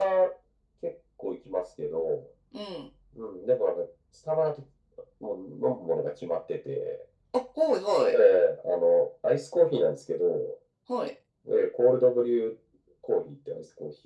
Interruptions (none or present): none